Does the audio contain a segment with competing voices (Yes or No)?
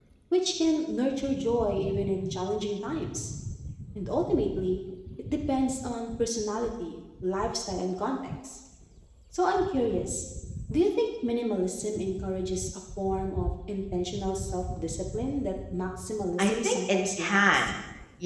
Yes